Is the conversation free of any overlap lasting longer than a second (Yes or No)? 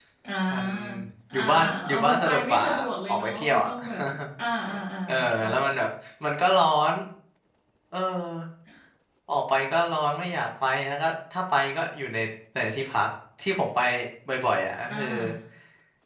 No